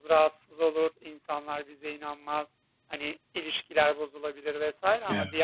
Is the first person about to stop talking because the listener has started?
No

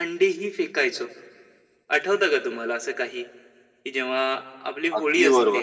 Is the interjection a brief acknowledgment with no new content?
No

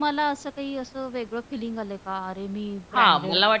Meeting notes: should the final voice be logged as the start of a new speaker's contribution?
Yes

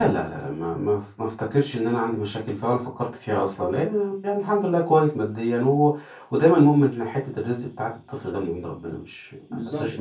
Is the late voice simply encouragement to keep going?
No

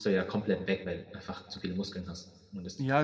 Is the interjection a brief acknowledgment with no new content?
No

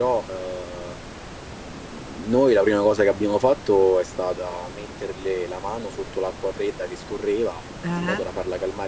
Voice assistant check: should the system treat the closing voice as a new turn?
No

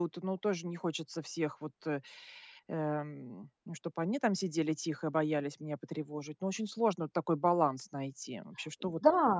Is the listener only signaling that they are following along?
No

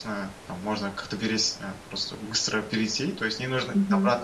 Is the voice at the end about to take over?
No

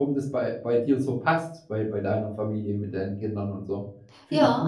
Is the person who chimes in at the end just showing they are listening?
No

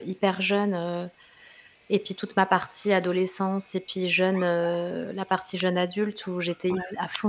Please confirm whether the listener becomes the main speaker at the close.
No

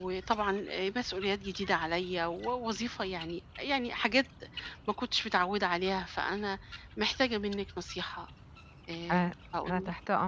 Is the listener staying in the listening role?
No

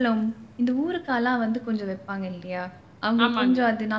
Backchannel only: Yes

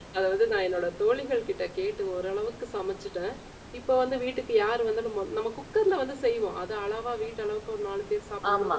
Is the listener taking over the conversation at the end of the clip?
No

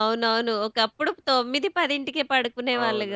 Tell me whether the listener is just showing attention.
No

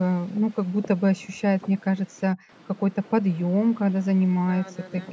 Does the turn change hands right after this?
Yes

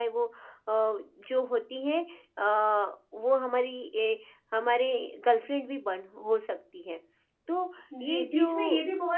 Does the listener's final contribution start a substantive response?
Yes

